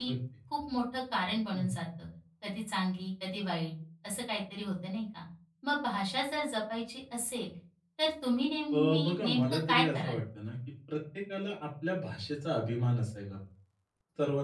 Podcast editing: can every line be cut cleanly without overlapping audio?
No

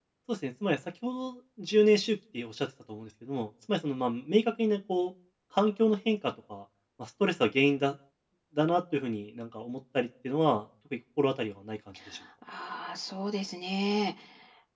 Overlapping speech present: No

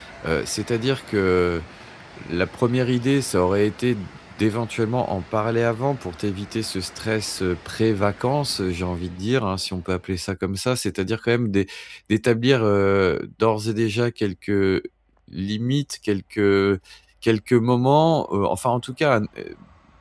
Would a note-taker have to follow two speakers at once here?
No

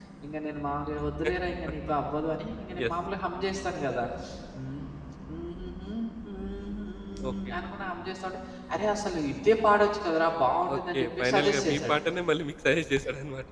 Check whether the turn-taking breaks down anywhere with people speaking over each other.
Yes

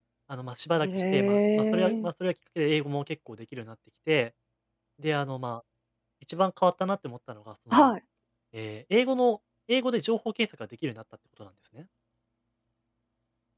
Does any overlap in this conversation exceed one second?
Yes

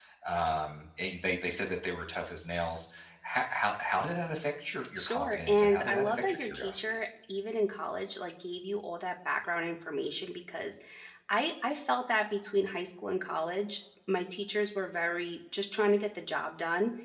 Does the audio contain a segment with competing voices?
Yes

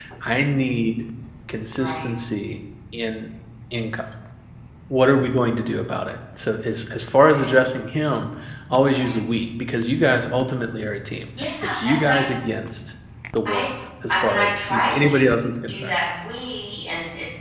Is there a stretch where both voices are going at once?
Yes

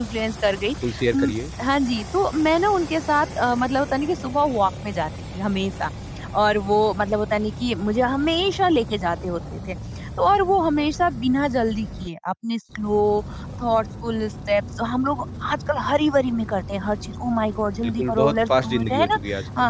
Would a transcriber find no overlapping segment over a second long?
No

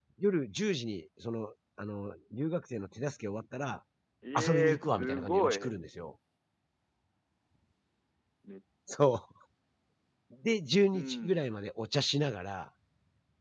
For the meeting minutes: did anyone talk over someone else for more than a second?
Yes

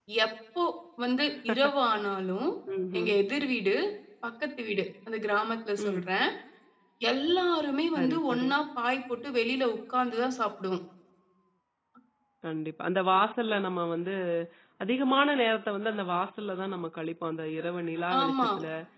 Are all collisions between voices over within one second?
Yes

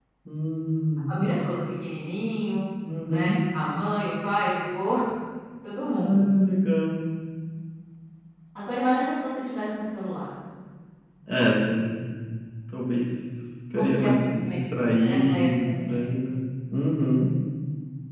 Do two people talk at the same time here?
Yes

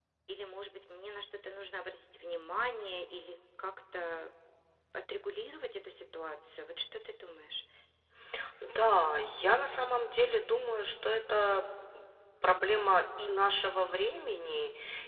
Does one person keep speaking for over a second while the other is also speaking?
No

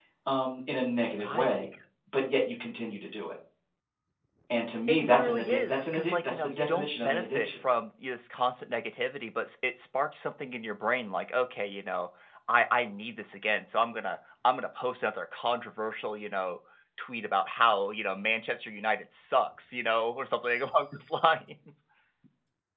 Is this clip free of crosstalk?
No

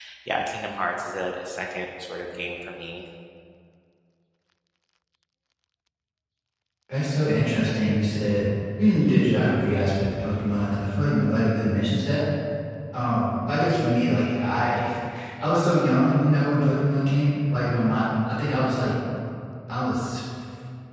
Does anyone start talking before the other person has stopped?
No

